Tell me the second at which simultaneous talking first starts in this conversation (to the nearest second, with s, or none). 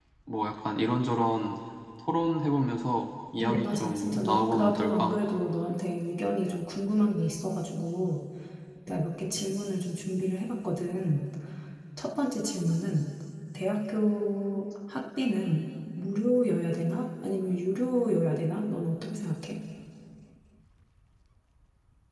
3 s